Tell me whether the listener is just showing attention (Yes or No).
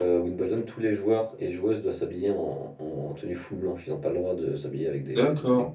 No